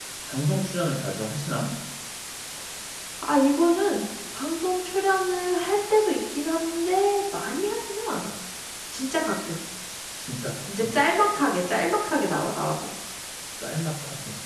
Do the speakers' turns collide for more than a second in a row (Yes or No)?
No